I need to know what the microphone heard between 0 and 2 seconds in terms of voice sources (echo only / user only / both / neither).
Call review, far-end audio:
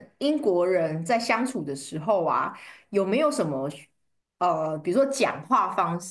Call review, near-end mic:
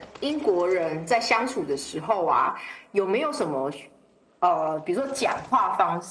echo only